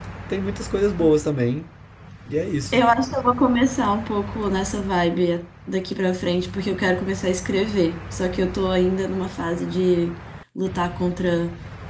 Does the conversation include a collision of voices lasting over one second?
No

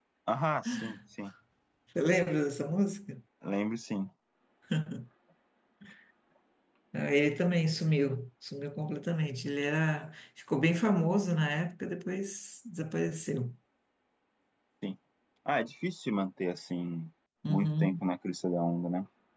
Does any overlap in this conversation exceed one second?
No

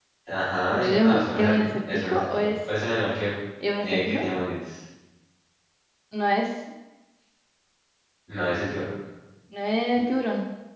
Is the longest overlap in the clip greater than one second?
Yes, from 0.7 s

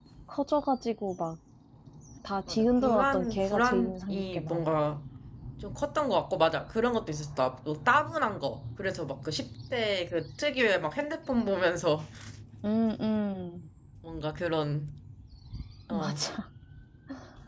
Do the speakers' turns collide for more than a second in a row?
Yes, from 2.5 s

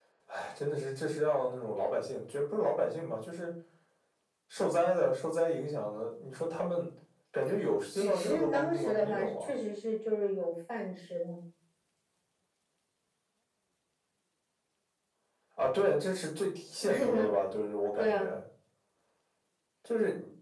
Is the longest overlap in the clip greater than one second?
Yes, from 7.9 s

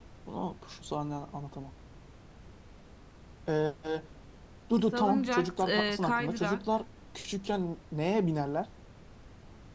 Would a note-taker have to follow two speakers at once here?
Yes, from 4.9 s

